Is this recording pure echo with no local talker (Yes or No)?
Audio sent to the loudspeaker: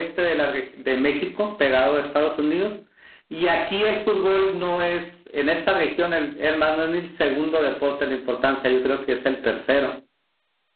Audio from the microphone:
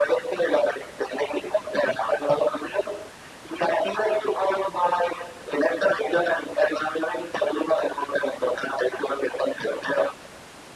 Yes